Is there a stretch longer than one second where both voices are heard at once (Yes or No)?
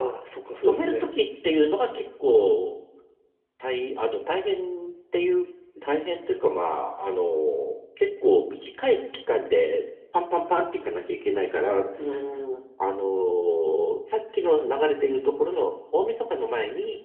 No